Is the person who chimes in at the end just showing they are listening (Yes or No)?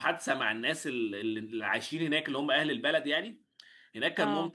Yes